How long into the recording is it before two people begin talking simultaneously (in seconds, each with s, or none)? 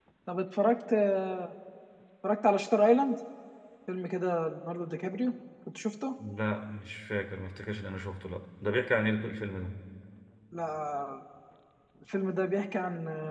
none